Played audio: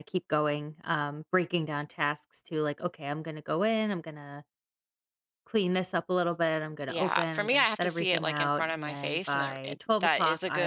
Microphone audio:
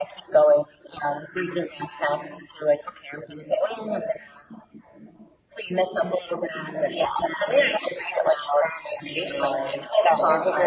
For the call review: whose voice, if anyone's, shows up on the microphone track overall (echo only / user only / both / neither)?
echo only